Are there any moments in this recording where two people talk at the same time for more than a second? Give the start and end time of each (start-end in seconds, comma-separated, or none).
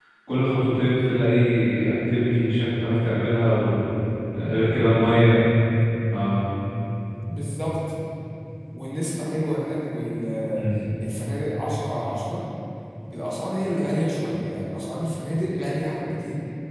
none